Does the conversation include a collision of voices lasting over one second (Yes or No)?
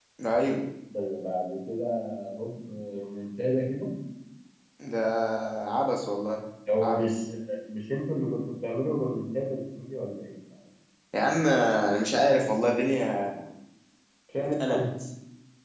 No